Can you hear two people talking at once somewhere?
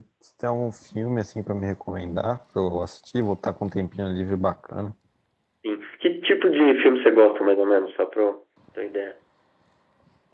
No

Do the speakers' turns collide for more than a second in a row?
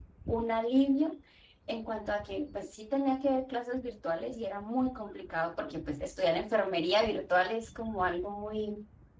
No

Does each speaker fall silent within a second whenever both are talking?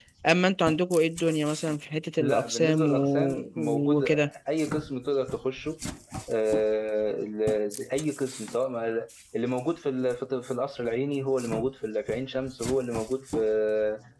No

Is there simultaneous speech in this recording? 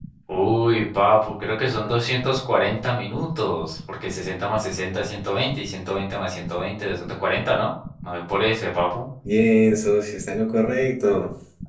No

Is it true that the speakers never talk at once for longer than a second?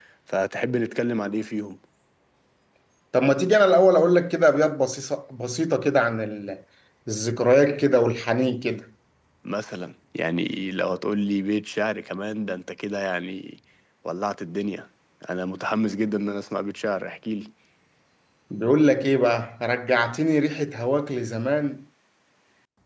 Yes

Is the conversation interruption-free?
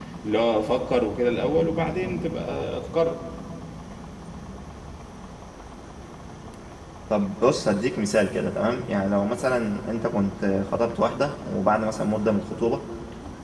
Yes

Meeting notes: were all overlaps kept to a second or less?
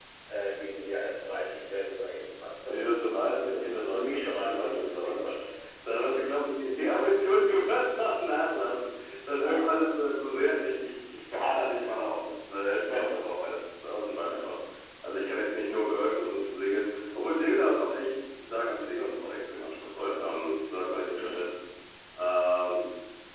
No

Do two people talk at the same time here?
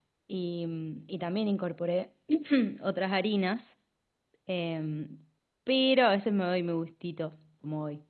No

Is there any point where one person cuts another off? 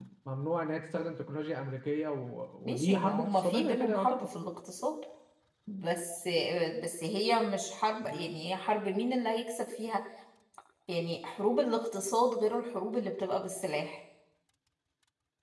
Yes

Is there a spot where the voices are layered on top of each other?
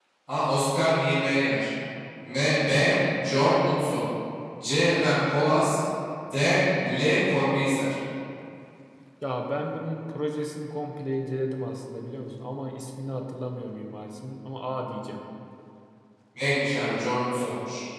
No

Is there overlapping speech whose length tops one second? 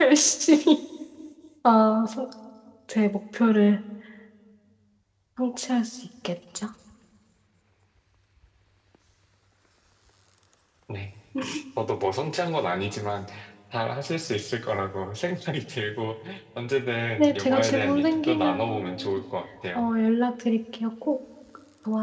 Yes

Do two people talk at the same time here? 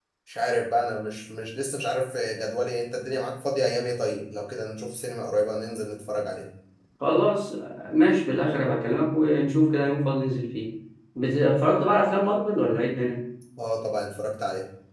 No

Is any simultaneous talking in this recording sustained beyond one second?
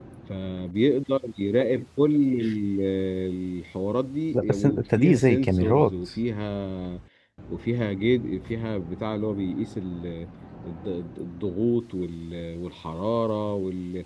Yes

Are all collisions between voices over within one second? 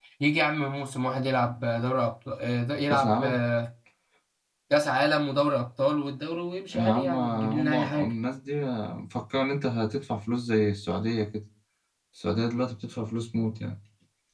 No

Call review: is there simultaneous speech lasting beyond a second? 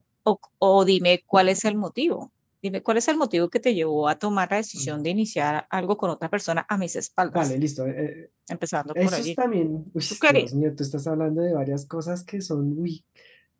No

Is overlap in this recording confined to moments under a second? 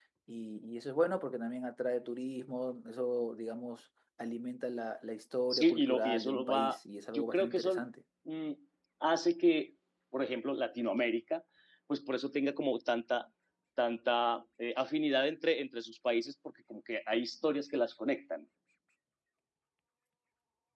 No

